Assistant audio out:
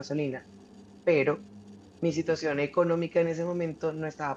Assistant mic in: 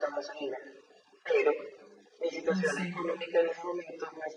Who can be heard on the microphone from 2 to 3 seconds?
both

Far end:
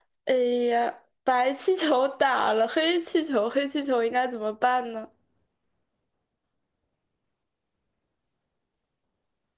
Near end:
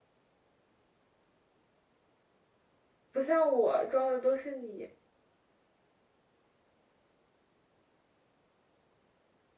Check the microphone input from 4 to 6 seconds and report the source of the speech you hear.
user only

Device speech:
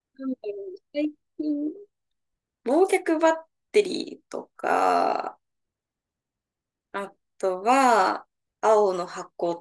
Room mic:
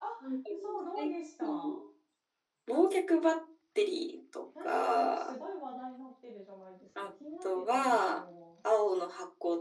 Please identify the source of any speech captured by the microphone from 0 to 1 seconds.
both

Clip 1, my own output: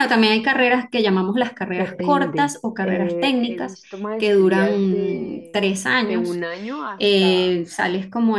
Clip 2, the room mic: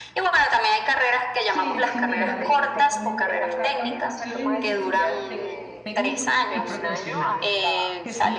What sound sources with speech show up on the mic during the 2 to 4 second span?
both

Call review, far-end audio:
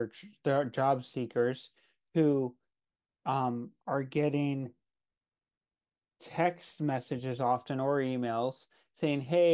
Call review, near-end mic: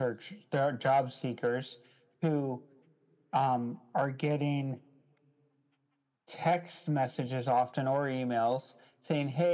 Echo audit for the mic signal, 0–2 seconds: echo only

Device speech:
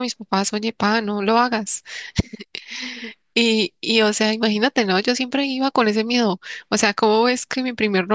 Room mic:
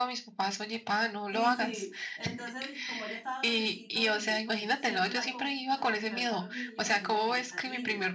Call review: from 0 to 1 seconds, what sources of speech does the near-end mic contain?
echo only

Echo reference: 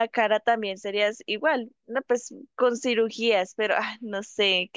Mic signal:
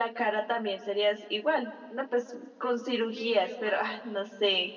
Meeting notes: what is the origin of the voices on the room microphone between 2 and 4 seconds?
both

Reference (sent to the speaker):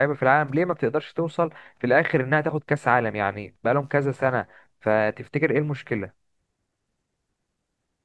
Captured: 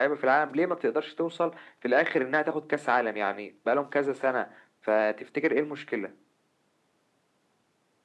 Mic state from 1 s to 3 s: echo only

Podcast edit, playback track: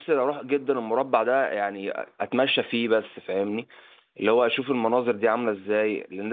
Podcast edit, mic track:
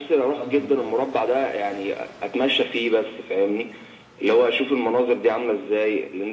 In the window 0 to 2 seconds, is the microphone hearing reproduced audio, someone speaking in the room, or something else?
both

